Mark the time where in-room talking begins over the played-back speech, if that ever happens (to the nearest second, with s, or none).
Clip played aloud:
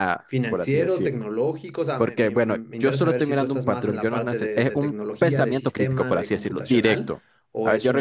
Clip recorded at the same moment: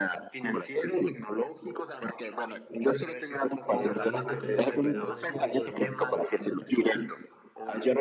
4 s